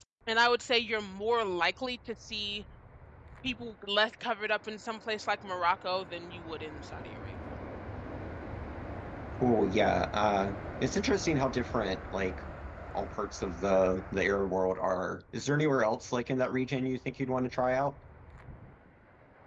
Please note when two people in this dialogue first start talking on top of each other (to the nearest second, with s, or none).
none